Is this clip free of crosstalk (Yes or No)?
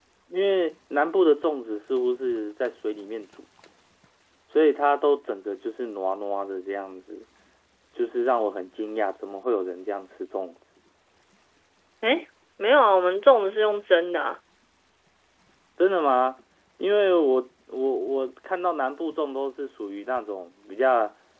Yes